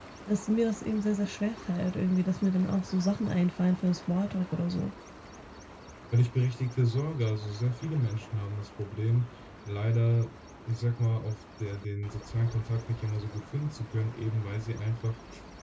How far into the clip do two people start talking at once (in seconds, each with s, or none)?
none